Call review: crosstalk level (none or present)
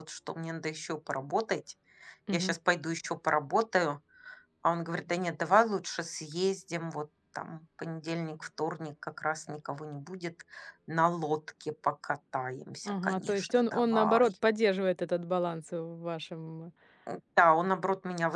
present